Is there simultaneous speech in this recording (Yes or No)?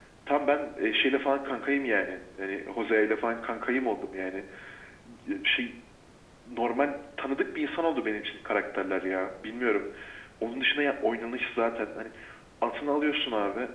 No